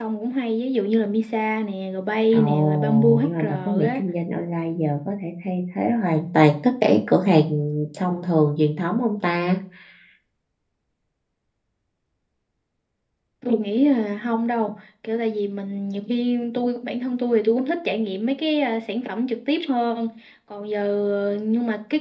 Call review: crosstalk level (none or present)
present